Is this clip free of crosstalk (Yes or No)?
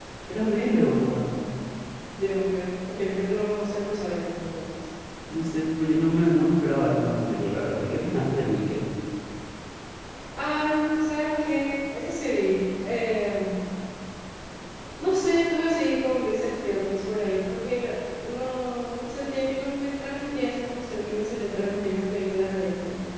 Yes